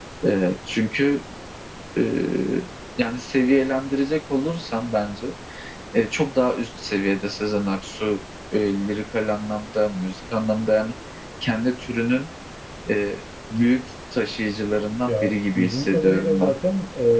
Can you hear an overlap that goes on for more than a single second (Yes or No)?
Yes